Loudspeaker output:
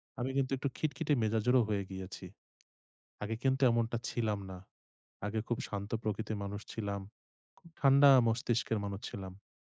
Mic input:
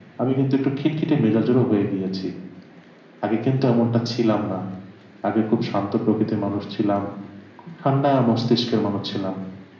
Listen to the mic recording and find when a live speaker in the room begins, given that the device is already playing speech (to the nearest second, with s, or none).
none